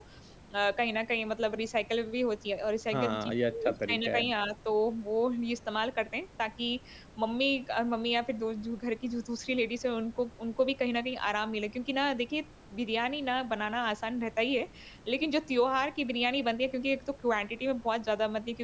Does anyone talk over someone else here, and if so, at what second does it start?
2.9 s

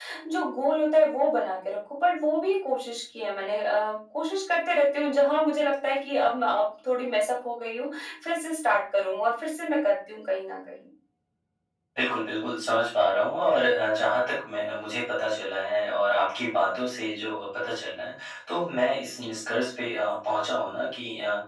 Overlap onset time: none

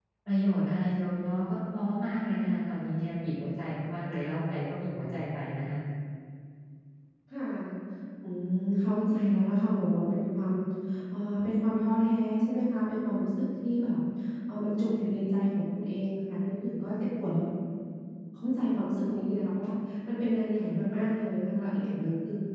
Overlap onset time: none

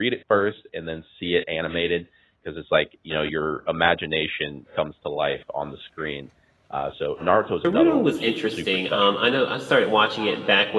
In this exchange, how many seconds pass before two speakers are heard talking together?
7.6 s

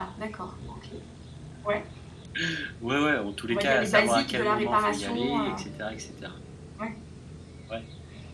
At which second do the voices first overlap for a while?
3.5 s

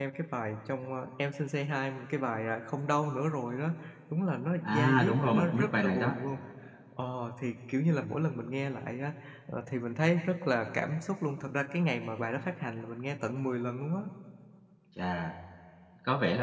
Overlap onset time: 4.6 s

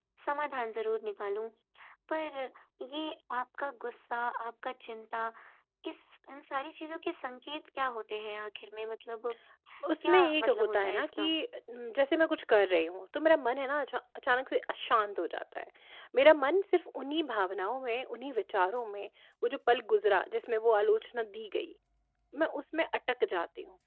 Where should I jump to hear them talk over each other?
10.0 s

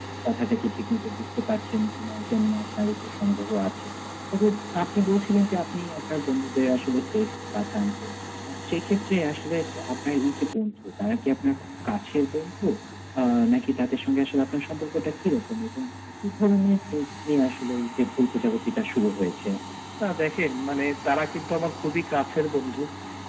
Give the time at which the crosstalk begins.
none

